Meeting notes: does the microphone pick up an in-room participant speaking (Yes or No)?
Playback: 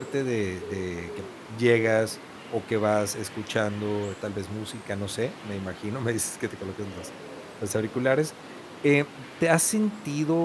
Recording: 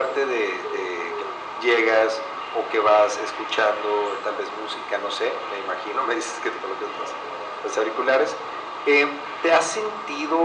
No